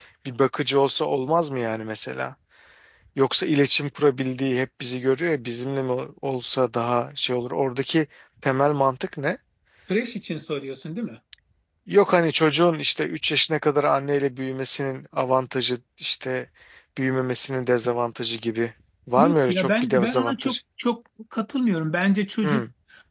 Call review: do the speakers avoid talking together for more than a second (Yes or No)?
No